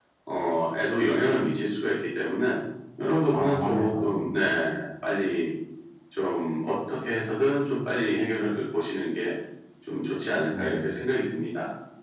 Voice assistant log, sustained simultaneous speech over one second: present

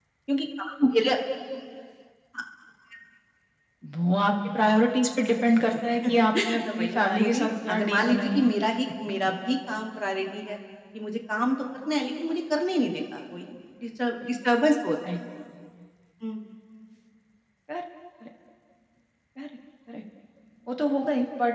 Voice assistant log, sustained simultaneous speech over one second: present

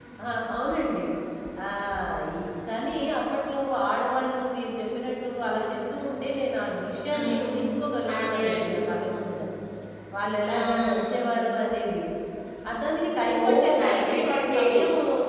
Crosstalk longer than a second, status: present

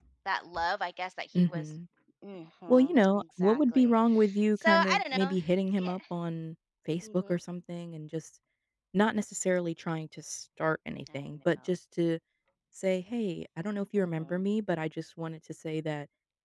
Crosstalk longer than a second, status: present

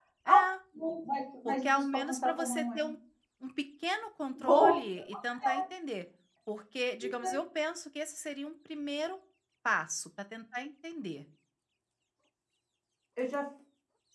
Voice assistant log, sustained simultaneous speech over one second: present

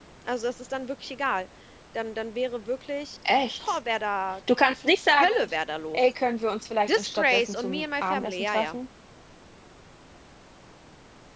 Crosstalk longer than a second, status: present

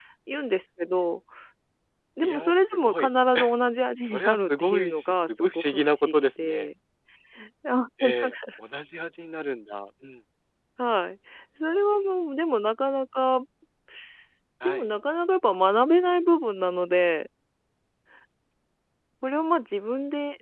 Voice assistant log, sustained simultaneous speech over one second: present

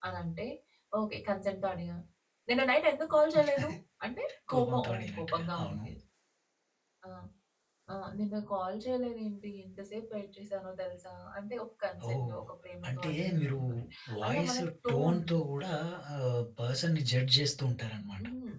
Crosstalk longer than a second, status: present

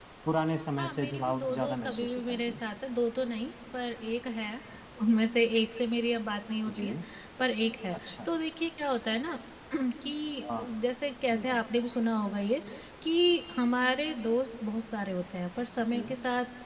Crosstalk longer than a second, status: present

